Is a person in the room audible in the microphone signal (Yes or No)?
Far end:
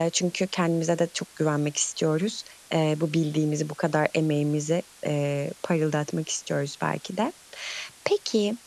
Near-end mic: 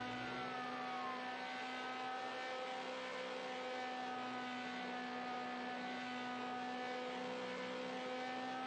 No